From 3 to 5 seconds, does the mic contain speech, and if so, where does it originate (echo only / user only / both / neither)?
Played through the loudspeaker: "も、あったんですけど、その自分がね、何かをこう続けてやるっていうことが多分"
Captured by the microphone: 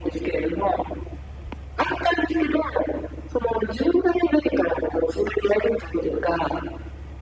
echo only